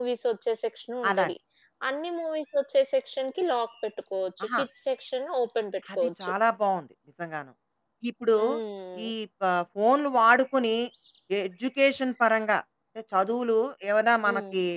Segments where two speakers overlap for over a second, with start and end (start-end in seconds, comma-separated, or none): none